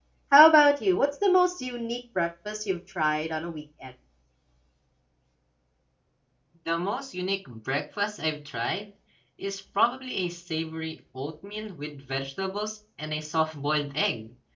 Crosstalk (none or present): none